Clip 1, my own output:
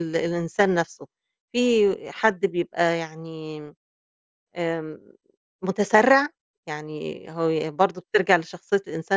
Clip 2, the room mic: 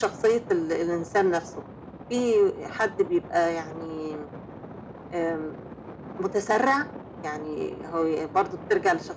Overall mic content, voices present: echo only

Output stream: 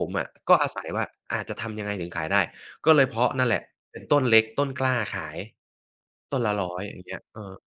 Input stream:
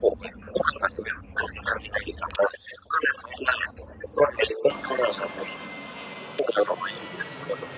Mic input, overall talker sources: echo only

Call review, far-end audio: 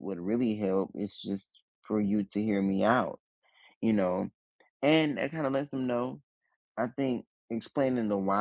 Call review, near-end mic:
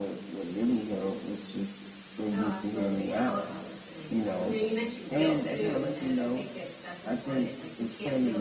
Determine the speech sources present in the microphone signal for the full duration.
both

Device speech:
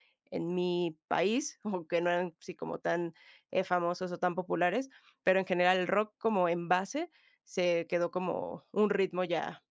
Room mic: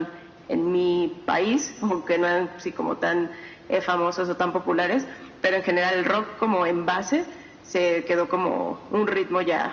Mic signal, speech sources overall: echo only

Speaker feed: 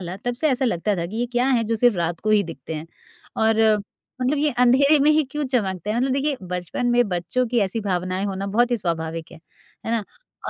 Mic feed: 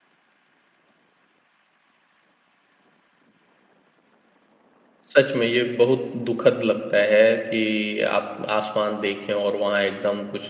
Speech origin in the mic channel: user only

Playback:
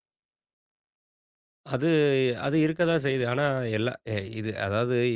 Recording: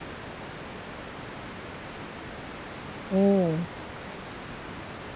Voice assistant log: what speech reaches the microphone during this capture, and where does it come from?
user only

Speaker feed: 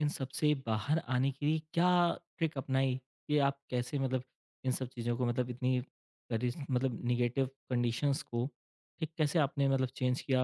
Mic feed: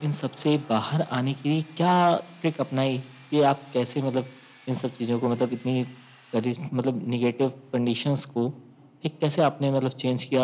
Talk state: echo only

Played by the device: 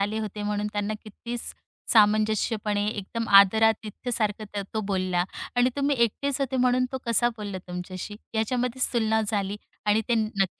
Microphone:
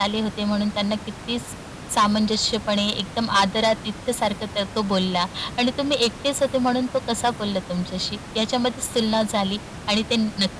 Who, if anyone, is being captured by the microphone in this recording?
echo only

